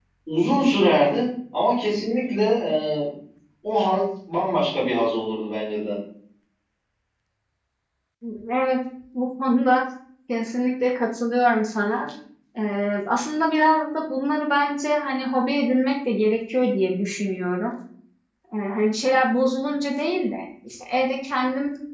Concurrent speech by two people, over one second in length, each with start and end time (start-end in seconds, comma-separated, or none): none